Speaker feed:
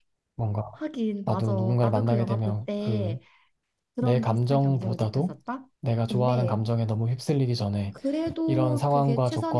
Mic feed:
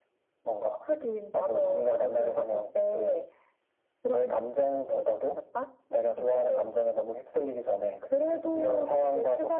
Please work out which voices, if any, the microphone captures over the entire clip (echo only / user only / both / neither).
echo only